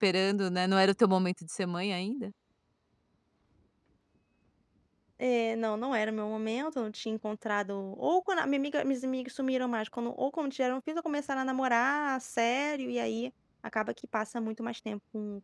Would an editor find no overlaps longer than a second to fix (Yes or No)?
Yes